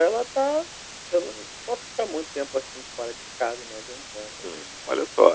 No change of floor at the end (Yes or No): No